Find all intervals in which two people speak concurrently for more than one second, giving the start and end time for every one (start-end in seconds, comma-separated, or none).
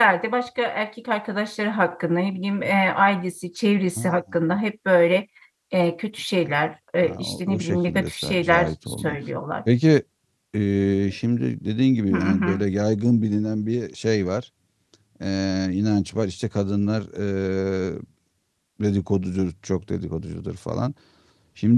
7.0-9.2